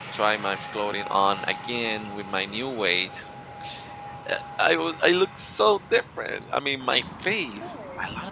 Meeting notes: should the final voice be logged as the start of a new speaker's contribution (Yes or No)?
No